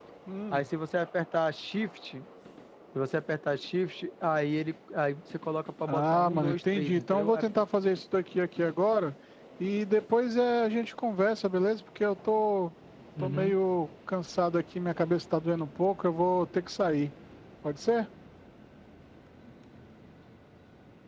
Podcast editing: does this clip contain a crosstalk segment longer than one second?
Yes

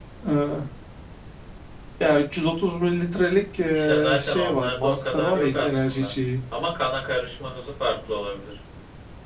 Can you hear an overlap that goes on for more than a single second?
Yes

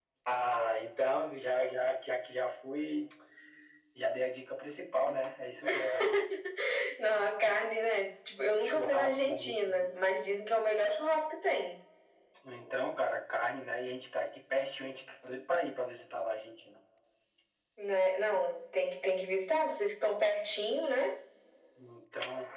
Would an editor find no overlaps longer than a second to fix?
No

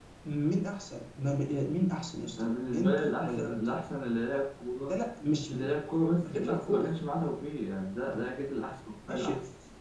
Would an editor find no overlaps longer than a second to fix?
No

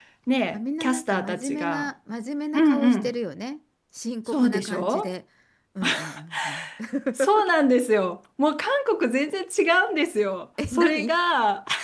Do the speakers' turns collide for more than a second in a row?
Yes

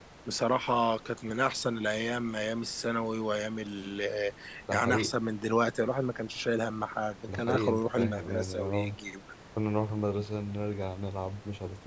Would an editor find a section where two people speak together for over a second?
Yes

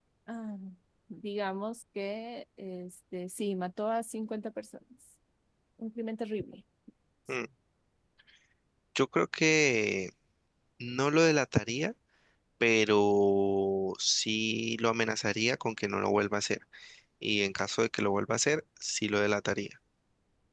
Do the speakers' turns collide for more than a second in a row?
No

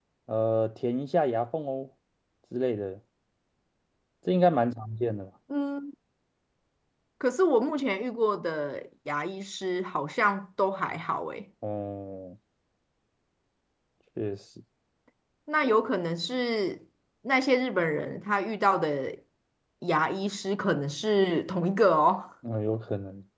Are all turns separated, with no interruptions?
Yes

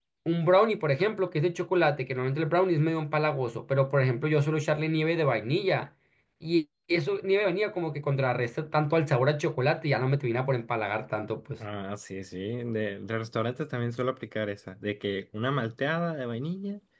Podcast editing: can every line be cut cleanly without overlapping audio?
Yes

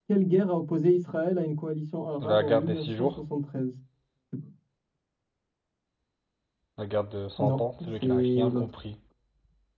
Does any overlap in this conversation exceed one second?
Yes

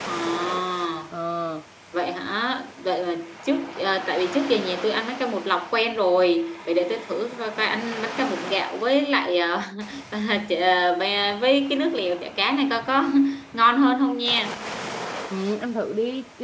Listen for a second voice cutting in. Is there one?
No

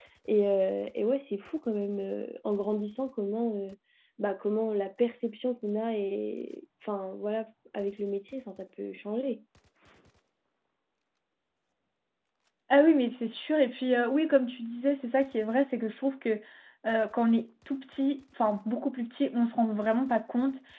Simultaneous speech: No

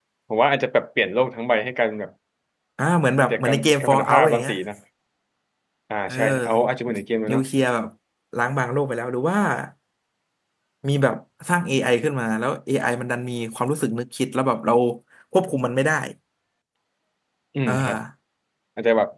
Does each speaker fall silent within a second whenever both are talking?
No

